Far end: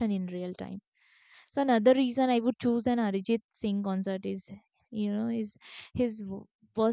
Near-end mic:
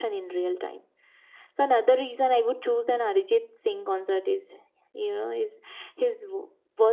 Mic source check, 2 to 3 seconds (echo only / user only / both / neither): echo only